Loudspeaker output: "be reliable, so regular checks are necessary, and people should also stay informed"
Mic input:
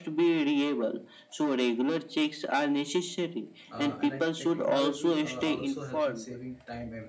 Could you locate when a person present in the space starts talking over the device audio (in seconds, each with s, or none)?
3.7 s